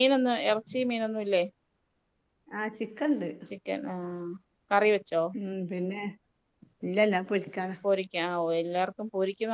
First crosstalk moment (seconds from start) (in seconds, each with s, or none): none